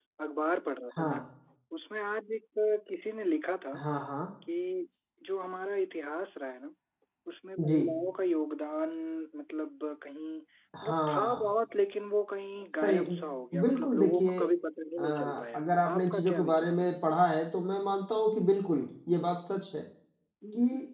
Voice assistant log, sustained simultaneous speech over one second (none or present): present